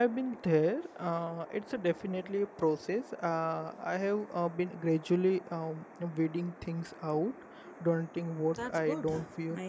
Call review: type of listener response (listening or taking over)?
taking over